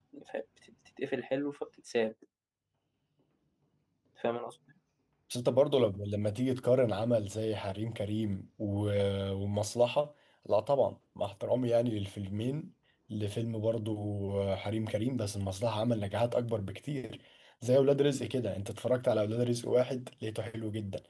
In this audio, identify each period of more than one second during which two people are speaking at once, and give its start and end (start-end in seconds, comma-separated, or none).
none